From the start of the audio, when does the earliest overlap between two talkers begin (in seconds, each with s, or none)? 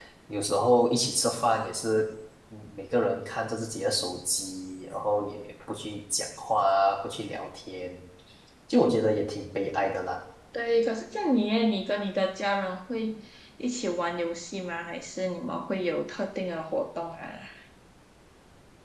none